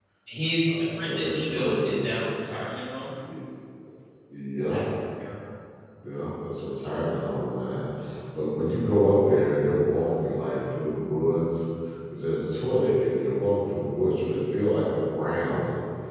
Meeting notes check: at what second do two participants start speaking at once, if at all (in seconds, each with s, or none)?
0.6 s